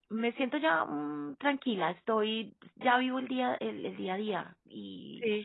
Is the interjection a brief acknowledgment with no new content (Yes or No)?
Yes